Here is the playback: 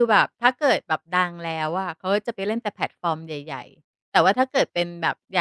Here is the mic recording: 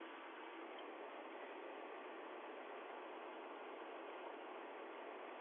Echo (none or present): none